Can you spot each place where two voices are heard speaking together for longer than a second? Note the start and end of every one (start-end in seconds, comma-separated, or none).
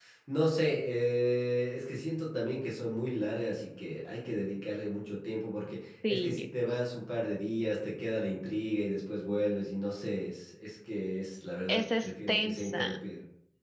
11.7-13.0